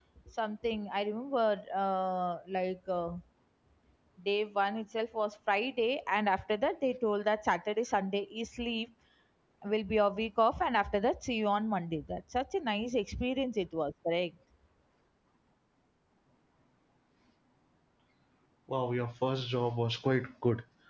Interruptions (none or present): none